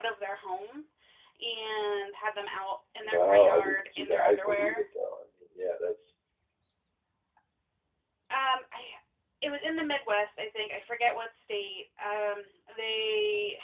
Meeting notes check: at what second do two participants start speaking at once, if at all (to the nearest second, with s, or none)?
3 s